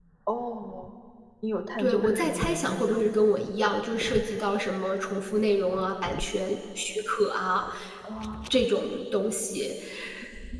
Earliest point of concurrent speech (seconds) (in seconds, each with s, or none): 1.8 s